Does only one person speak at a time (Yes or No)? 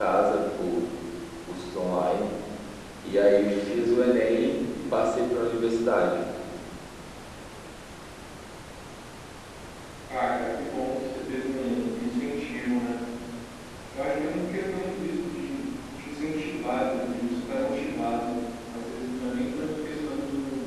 Yes